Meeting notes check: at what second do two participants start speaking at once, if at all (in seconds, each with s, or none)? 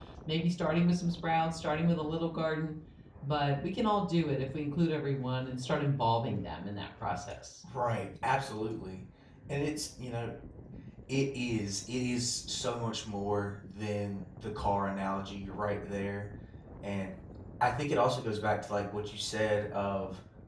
none